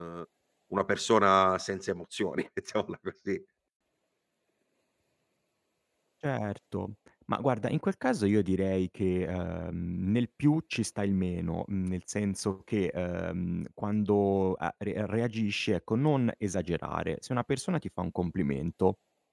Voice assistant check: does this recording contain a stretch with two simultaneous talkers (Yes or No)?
No